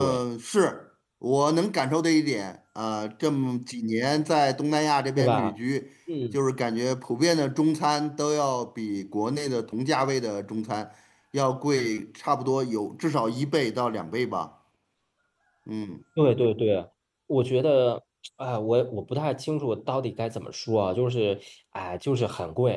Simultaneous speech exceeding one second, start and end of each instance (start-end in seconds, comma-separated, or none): none